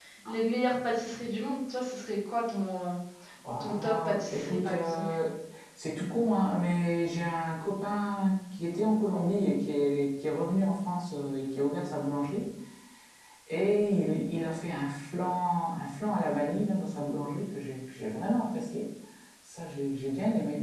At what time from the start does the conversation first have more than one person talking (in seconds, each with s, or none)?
3.6 s